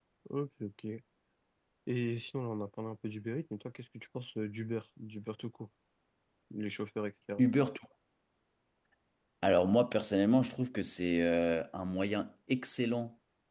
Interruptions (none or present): none